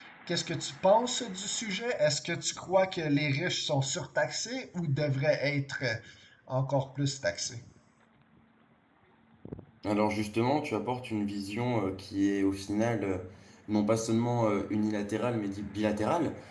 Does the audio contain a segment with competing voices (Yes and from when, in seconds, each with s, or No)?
No